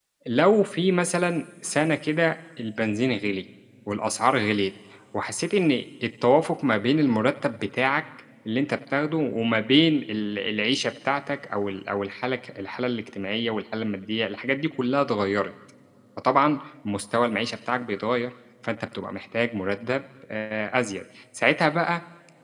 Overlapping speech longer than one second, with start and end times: none

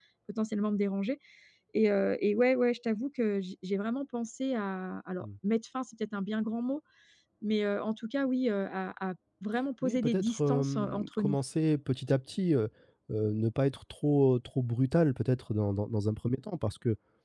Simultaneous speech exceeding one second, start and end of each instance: 9.8-11.4

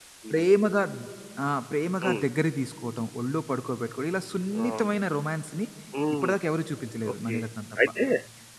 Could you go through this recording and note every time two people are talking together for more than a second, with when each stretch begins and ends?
none

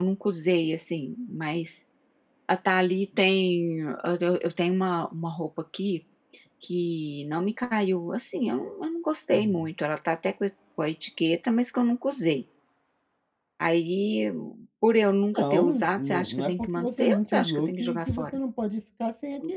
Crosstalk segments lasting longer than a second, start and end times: 15.4-18.4

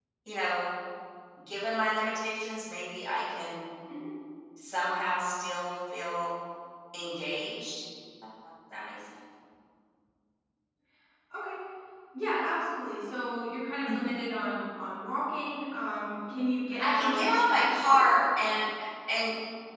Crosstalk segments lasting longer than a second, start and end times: 16.8-18.0

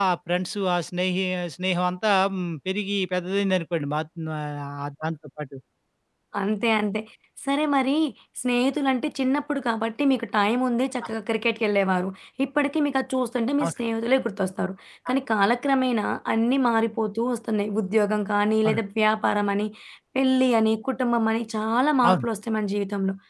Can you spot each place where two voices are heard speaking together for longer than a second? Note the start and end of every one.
none

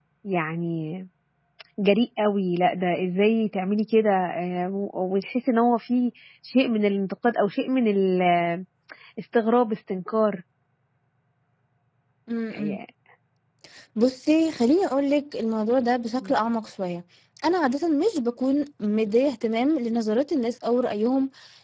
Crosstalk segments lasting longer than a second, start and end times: none

